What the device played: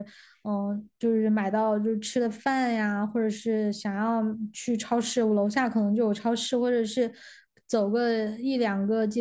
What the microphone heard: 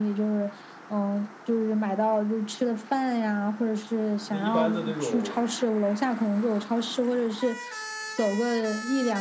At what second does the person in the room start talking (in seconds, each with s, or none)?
4.2 s